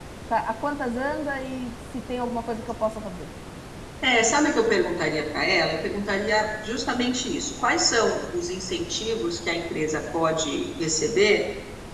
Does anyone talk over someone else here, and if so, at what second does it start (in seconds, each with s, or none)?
none